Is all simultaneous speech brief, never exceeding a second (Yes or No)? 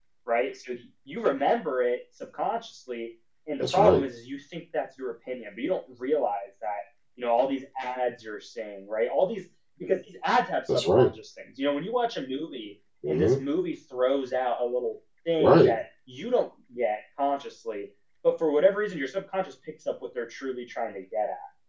Yes